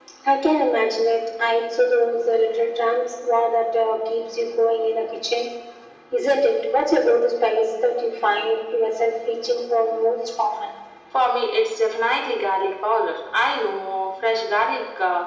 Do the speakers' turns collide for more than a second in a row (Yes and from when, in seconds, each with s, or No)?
No